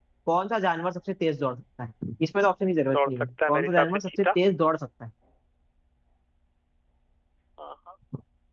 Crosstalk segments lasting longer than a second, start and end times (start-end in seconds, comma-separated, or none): 2.9-4.3